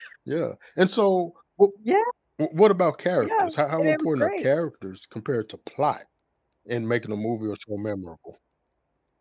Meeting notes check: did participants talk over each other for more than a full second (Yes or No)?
Yes